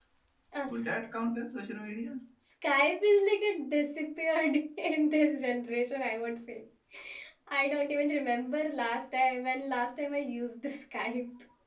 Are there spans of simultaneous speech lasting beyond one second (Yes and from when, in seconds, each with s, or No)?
No